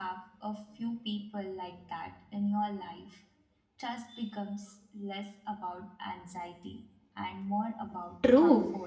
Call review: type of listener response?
taking over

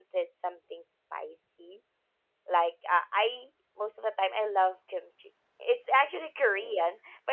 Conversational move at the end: listening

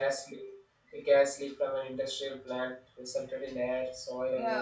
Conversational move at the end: listening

